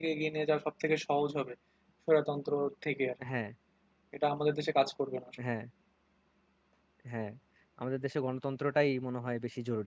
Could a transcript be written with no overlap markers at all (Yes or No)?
Yes